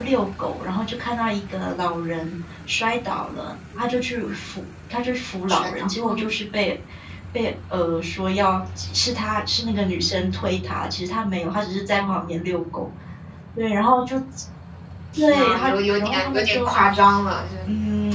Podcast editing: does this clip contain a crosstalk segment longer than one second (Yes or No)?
Yes